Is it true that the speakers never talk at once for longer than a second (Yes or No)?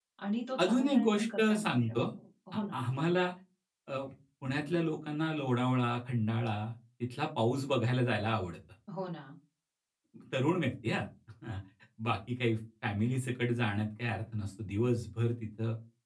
No